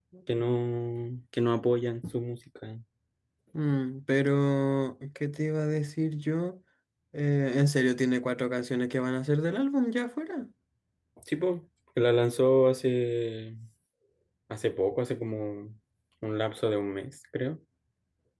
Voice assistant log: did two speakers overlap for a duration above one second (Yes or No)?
No